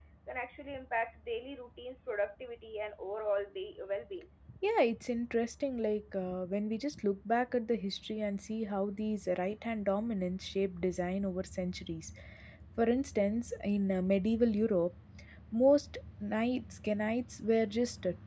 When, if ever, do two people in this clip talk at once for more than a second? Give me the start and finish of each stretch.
none

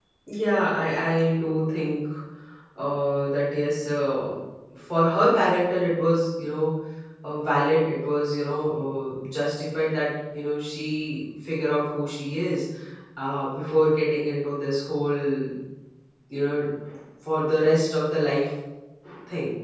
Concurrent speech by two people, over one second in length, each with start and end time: none

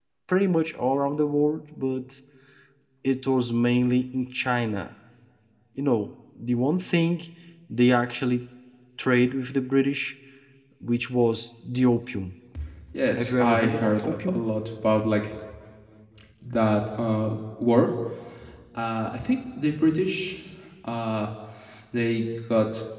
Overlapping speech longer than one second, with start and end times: 13.2-14.4

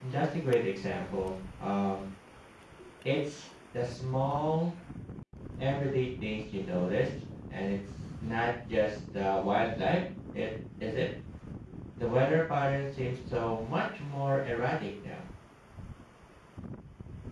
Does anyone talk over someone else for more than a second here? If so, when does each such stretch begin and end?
none

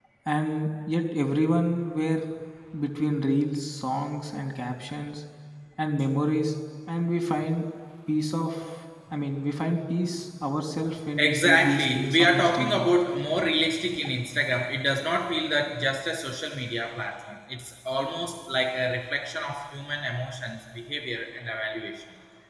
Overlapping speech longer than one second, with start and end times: 11.2-12.9

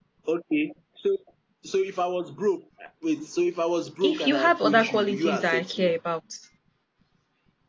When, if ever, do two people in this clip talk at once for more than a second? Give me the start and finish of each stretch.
4.0-5.9

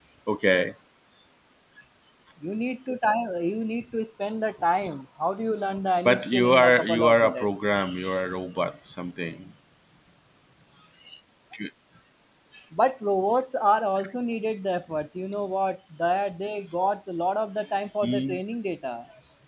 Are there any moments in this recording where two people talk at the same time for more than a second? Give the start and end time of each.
6.0-7.5

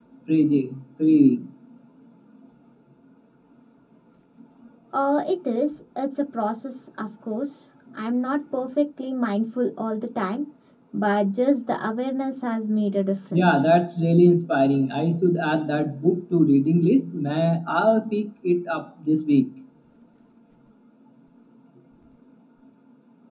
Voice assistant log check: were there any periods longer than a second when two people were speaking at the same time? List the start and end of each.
none

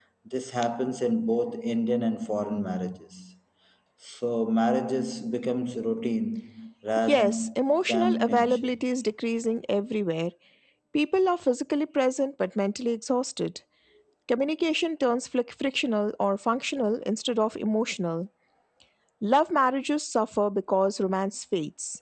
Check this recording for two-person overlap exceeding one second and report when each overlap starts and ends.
7.1-8.8

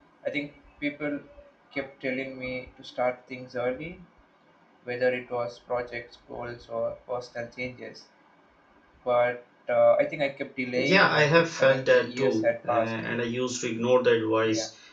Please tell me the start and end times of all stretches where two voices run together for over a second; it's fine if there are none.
10.8-13.2

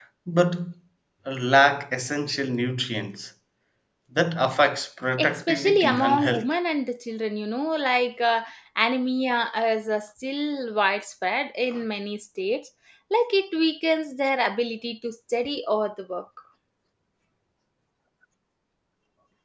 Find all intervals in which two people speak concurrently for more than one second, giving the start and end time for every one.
5.2-6.5

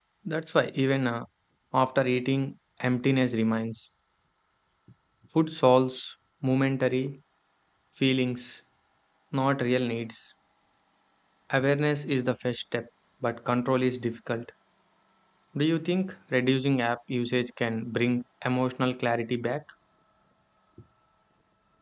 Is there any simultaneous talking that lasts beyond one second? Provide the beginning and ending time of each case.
none

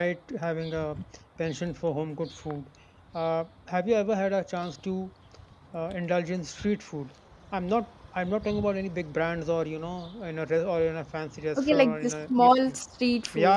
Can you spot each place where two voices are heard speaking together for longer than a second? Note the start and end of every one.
11.6-12.8

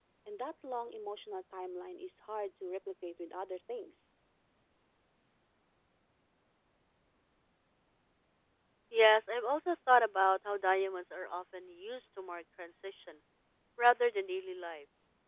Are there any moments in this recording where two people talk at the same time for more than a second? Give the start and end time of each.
none

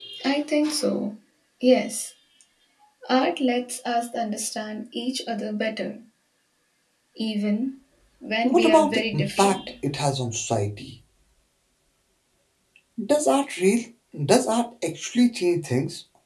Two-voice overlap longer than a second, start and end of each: 8.4-9.7

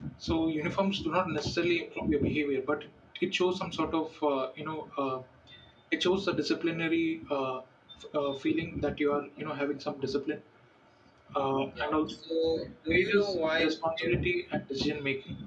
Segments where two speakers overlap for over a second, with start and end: 12.9-14.4

